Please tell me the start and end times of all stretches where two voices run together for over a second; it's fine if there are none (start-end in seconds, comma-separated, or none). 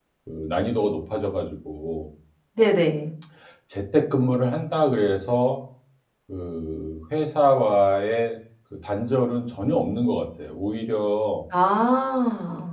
none